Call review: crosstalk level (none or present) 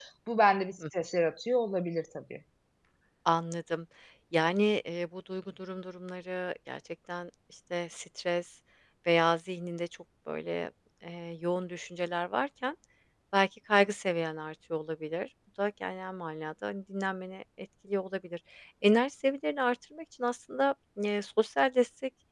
none